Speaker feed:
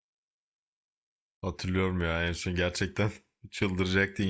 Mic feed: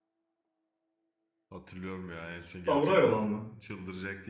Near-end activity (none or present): present